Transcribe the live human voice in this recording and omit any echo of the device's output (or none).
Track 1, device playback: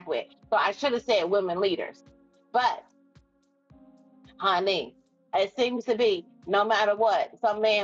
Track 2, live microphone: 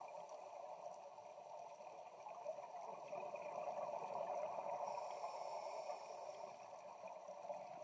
none